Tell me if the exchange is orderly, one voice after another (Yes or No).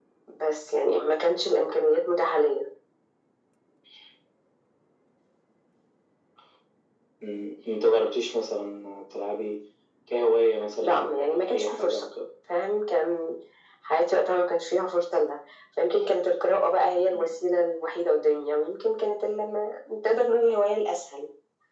No